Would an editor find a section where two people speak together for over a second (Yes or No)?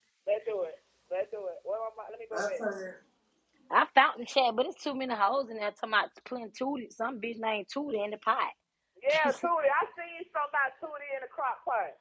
No